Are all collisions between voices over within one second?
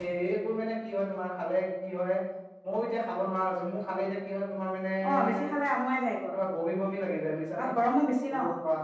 Yes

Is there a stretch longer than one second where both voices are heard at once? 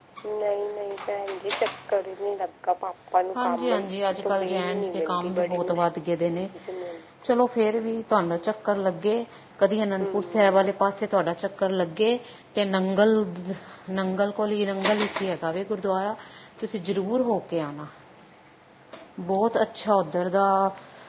Yes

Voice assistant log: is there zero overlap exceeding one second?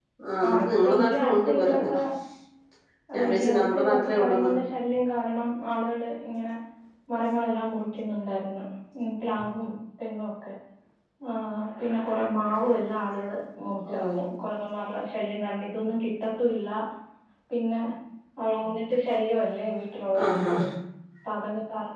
No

